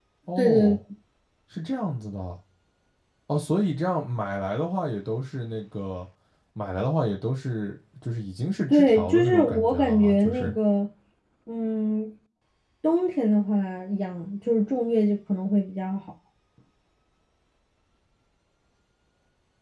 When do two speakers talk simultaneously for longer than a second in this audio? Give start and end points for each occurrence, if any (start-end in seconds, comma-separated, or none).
8.7-10.5